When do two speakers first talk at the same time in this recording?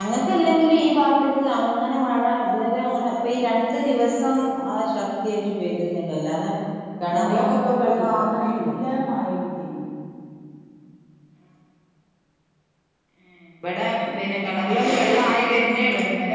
7.2 s

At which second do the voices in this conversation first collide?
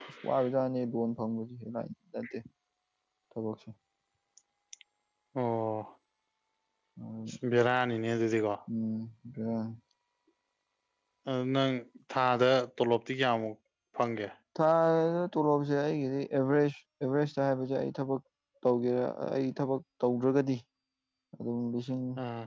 none

